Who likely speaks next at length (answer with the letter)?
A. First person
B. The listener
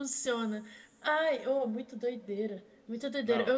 A